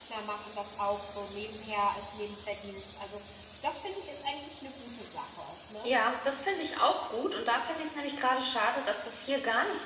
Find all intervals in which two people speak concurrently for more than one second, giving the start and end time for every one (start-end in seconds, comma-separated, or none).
none